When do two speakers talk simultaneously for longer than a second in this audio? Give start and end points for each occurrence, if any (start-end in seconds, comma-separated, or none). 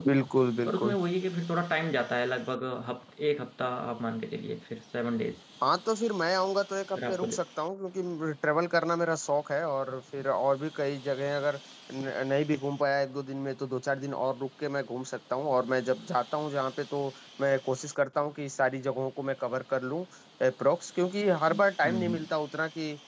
none